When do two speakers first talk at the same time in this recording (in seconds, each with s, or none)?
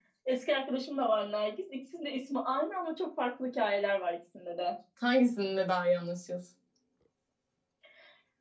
none